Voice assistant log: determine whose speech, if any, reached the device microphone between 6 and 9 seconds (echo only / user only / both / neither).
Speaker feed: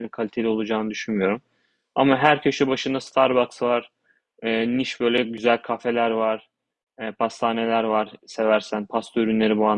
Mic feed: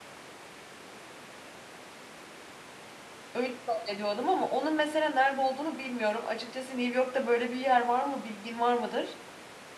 user only